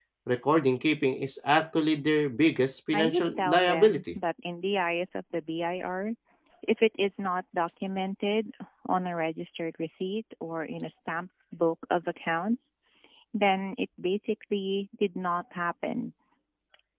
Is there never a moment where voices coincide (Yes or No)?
No